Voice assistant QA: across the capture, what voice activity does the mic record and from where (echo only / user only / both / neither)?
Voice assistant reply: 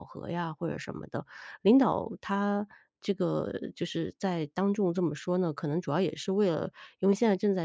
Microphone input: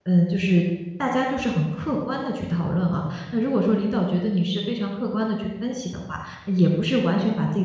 user only